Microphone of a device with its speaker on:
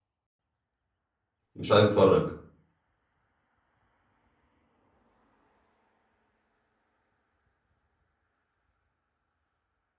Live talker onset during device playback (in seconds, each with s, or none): 1.5 s